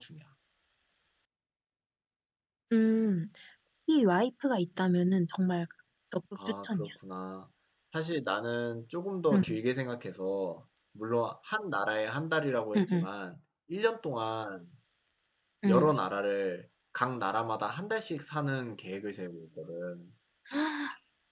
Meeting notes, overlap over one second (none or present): none